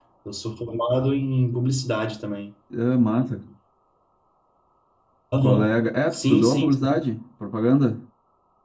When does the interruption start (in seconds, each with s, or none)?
5.4 s